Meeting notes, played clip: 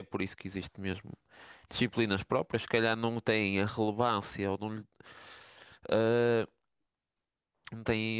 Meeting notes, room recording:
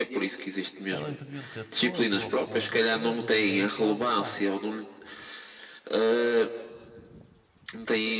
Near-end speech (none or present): present